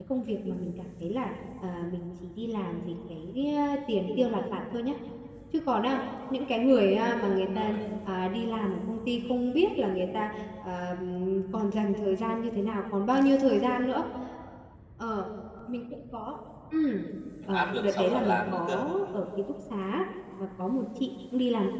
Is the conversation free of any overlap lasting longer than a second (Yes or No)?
No